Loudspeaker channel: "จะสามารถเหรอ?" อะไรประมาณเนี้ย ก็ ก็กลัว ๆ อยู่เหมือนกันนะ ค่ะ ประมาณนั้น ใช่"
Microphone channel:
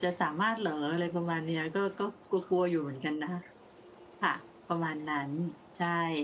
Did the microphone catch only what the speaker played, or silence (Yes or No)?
Yes